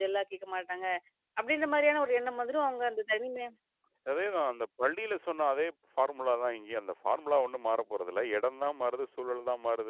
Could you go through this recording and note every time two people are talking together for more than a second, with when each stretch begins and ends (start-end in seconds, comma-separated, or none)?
none